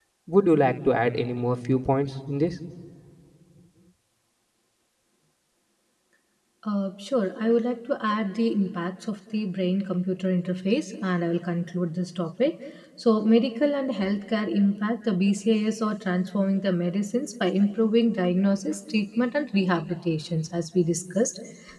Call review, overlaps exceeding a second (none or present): none